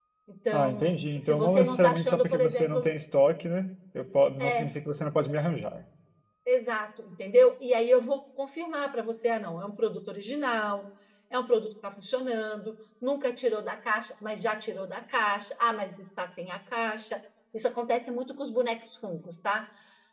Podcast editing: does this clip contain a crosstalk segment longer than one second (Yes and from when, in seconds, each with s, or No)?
Yes, from 0.5 s